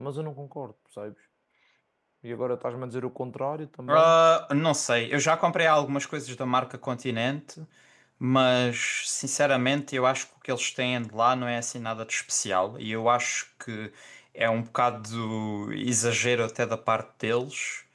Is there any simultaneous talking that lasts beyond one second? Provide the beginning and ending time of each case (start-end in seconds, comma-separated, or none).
none